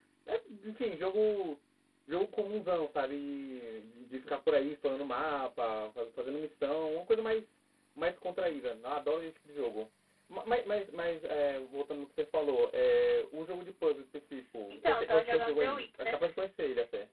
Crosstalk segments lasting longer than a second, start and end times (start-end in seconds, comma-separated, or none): 14.7-16.3